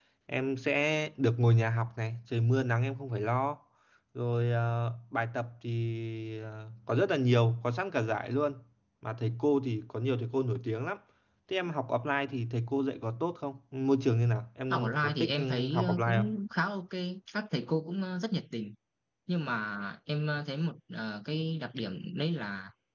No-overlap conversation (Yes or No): No